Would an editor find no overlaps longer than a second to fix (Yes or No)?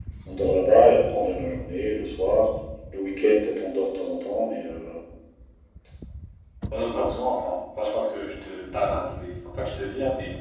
Yes